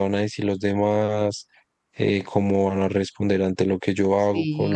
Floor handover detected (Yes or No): Yes